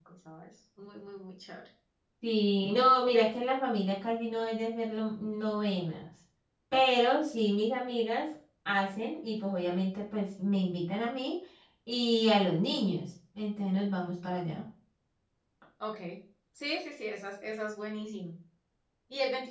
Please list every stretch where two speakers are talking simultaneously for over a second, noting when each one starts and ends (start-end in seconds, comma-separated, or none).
none